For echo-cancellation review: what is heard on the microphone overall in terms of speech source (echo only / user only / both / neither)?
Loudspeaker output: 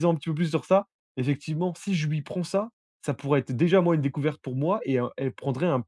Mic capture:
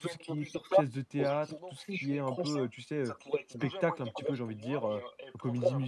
both